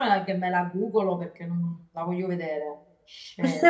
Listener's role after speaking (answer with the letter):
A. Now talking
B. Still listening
A